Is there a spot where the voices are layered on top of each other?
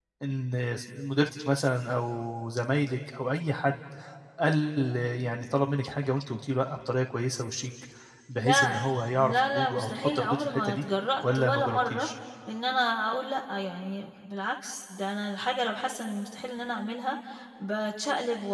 Yes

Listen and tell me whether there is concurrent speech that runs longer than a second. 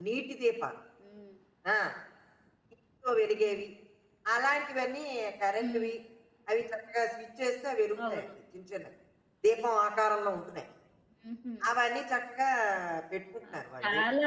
No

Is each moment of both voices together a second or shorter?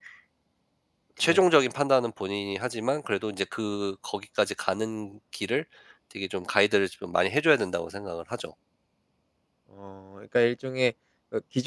Yes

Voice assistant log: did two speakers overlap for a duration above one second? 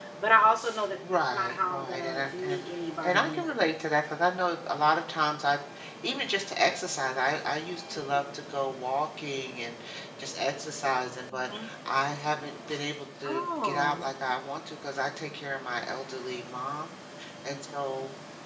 Yes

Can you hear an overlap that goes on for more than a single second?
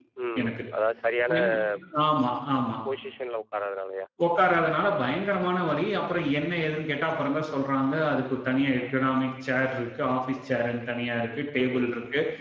No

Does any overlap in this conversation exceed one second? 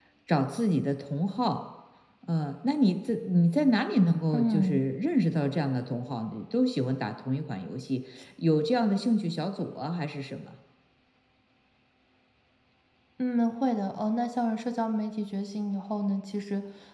No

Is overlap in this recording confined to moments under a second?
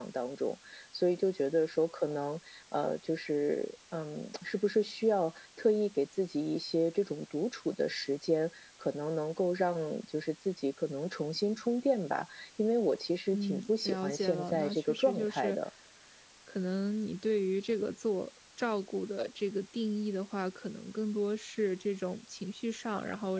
No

